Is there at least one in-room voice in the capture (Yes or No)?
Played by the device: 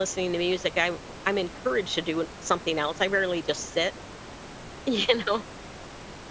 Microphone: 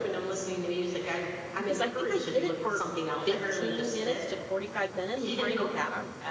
Yes